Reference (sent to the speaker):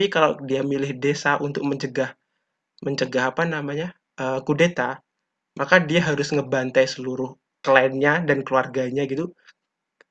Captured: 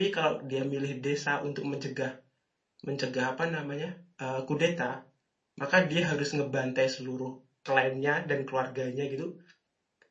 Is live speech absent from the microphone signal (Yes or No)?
Yes